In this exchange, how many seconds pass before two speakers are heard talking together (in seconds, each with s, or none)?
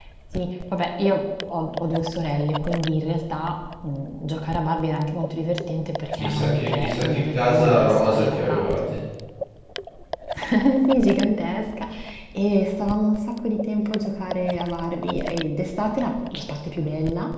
6.2 s